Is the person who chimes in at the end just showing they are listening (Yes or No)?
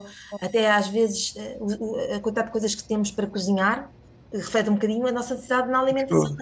Yes